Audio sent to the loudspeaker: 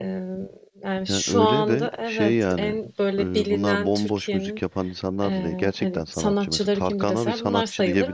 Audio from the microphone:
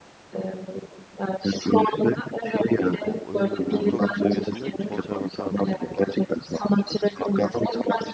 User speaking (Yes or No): Yes